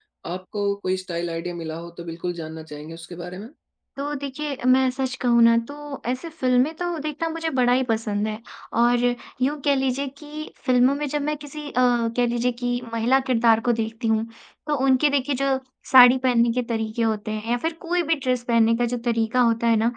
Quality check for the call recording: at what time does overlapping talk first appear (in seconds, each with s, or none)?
none